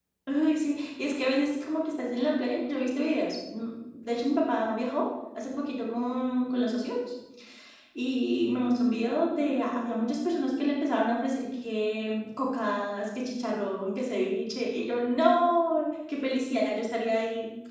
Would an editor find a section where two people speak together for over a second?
No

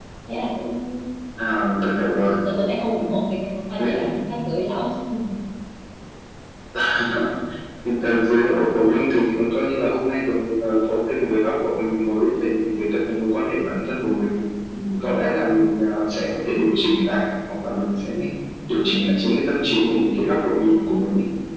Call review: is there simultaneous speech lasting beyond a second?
No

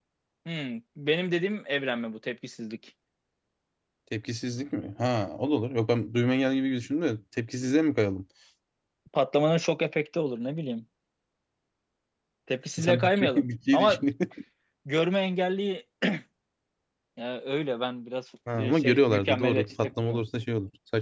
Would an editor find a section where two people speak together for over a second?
Yes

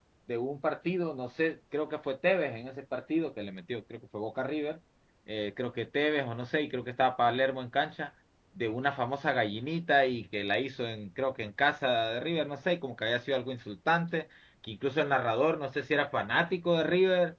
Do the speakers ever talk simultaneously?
No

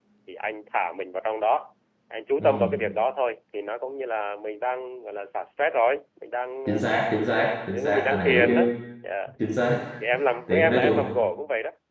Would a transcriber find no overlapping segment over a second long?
No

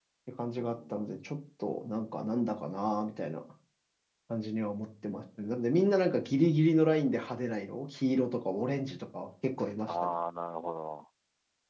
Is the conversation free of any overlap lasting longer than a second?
Yes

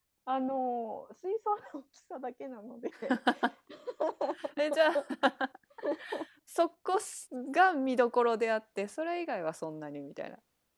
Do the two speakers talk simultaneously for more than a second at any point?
No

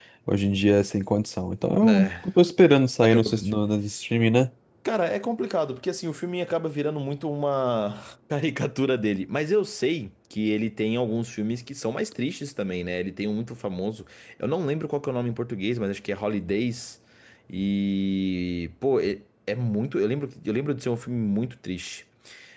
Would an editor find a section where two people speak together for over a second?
No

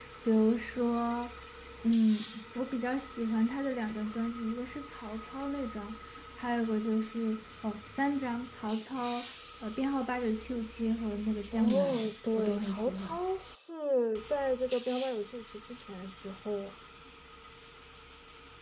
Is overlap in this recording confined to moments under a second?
No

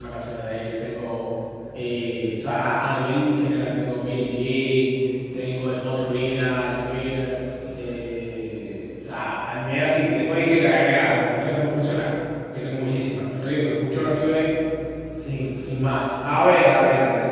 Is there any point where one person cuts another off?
No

